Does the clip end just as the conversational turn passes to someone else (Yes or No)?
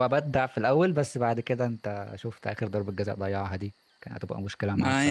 Yes